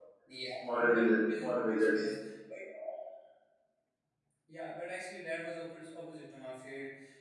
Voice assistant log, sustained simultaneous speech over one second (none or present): present